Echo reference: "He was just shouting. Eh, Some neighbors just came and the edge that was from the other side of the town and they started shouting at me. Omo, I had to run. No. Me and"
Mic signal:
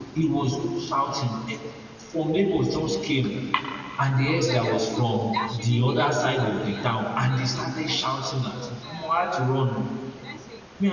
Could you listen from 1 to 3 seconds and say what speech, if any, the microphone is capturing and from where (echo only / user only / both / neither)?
echo only